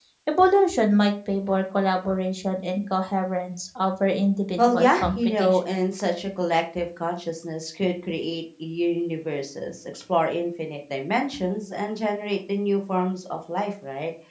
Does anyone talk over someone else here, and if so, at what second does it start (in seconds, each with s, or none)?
4.6 s